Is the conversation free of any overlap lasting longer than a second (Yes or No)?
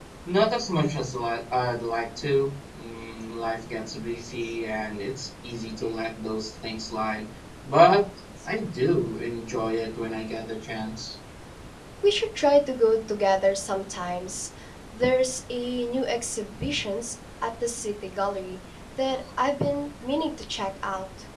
Yes